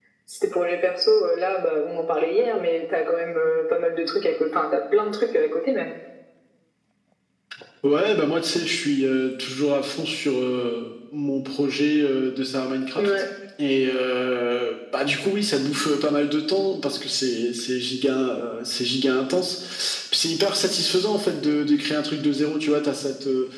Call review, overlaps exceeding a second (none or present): none